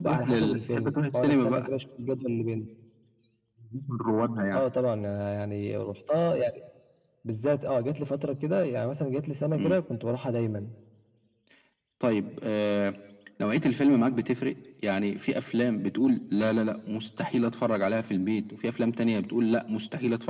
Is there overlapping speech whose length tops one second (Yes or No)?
Yes